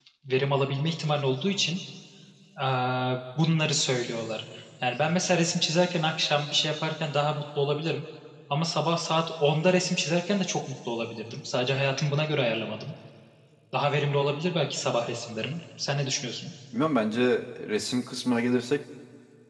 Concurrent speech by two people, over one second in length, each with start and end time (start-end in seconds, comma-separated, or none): none